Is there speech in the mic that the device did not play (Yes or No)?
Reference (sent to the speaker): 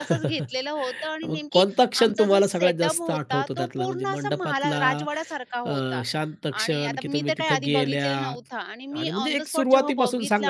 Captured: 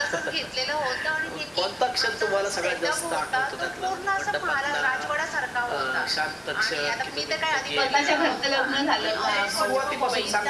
Yes